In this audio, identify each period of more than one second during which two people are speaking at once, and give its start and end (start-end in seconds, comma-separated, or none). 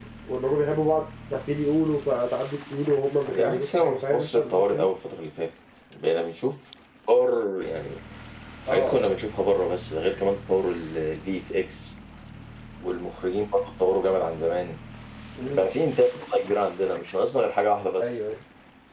3.3-4.9